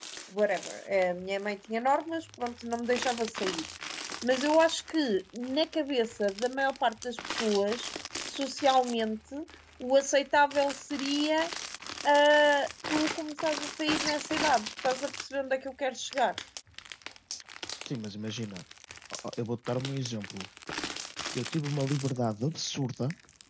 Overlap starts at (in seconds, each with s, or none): none